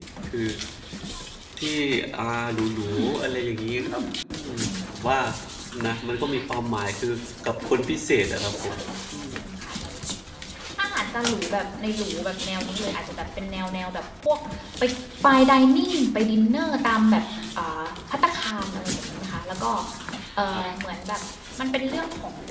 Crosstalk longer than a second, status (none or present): none